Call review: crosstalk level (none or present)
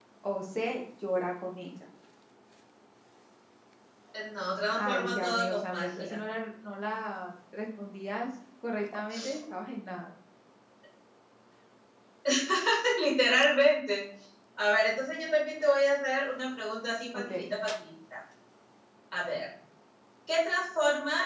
present